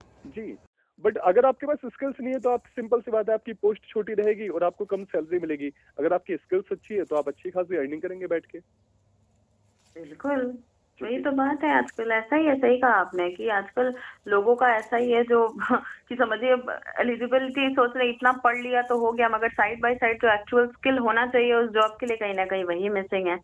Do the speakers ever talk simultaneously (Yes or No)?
No